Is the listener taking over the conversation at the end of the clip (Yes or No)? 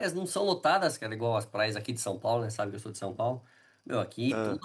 No